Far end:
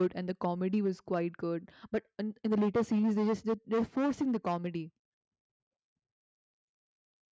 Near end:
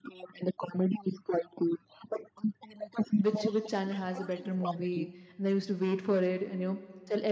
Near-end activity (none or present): present